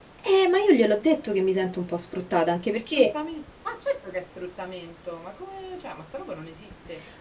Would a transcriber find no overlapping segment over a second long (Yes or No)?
Yes